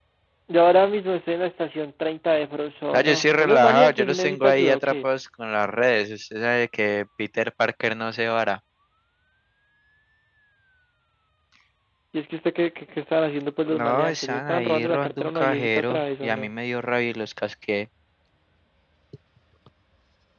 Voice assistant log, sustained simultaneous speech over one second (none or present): present